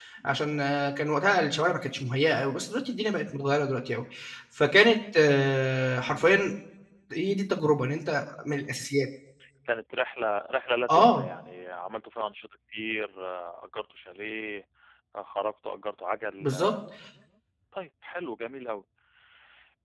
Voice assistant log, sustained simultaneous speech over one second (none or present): none